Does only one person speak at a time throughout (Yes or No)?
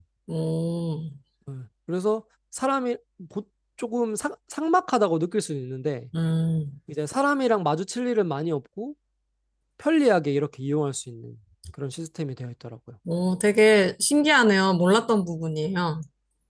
Yes